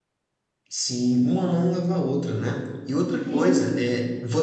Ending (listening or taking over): listening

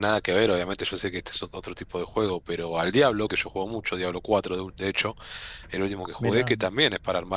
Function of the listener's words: listening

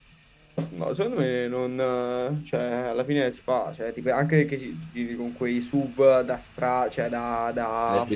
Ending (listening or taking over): taking over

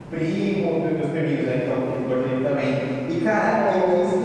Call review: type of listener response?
listening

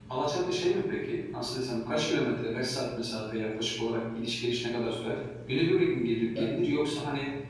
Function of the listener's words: listening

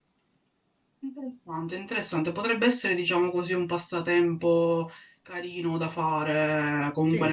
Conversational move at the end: listening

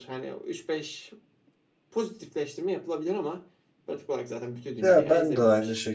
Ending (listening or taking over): taking over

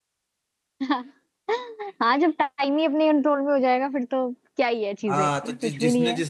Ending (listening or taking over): taking over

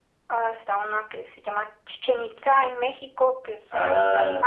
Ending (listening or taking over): taking over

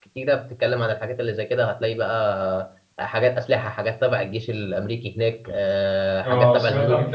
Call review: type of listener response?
taking over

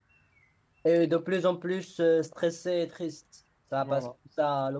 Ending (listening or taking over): listening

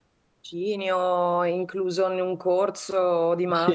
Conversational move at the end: taking over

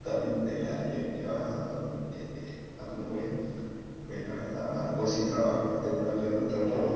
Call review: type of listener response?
taking over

